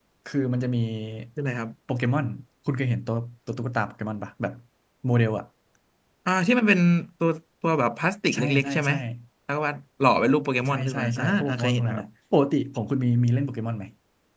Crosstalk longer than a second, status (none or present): present